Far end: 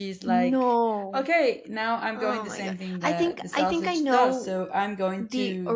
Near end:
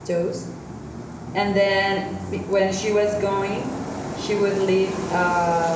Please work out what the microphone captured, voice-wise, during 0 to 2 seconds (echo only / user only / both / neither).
user only